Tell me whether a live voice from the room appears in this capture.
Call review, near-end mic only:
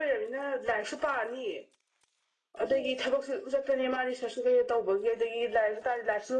No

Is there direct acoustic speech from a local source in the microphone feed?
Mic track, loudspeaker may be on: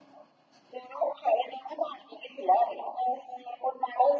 No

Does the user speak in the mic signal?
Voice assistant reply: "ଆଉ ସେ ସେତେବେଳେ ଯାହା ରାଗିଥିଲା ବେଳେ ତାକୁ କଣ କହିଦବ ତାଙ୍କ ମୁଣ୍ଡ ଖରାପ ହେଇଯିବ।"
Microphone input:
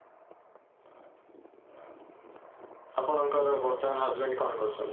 Yes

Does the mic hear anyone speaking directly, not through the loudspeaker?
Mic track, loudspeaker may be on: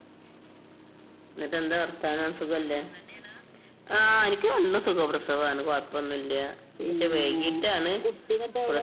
Yes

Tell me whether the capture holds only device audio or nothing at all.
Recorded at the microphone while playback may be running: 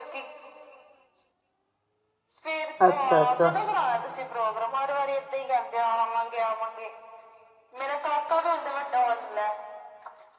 No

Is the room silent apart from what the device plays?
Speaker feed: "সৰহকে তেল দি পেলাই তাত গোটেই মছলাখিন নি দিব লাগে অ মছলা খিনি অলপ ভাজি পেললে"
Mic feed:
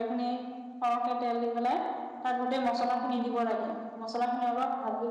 Yes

